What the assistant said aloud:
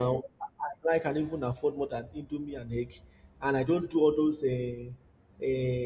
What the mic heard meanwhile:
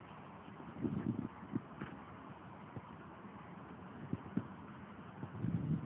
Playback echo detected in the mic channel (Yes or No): No